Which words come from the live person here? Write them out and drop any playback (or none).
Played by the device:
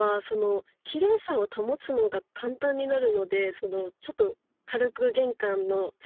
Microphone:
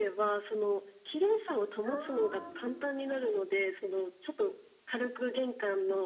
ああ。